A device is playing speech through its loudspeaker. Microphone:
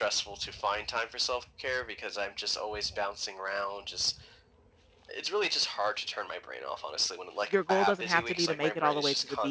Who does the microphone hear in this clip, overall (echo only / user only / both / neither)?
both